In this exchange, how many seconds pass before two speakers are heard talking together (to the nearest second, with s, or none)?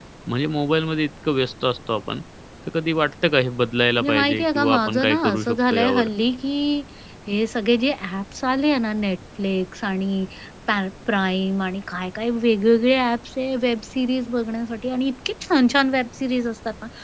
4 s